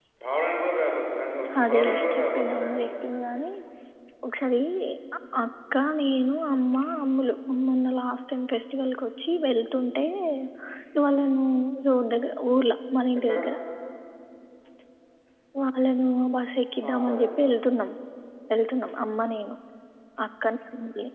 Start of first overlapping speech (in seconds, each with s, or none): 1.6 s